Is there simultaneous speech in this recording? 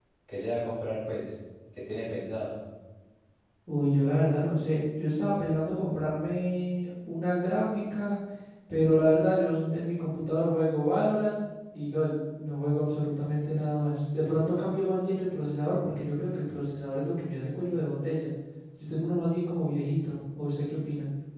No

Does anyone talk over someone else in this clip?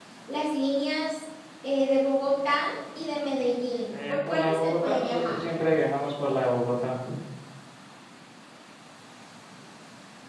Yes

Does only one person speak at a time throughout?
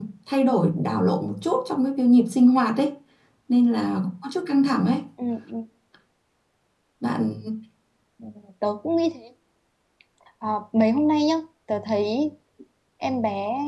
Yes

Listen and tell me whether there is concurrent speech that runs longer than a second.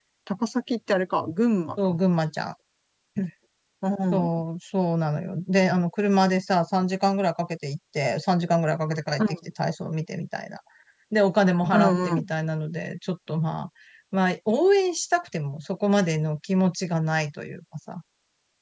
No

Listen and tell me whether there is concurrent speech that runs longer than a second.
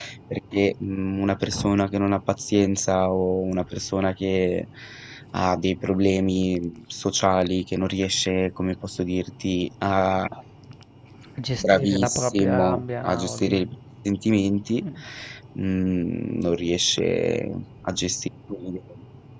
Yes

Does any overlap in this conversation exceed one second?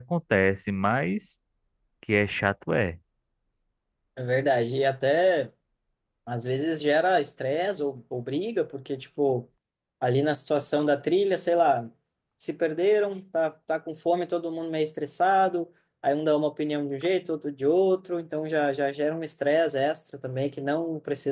No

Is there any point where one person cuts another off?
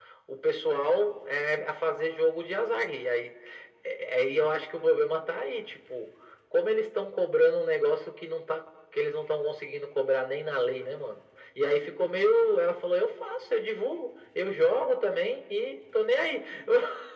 No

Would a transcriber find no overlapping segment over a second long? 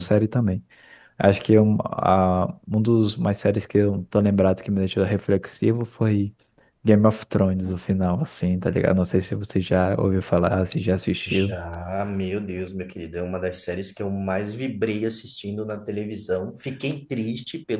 Yes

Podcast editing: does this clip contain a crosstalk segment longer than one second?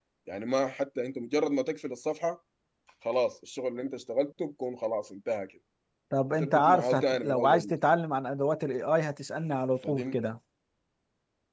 Yes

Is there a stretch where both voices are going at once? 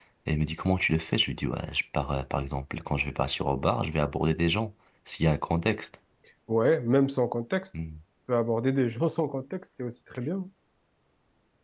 No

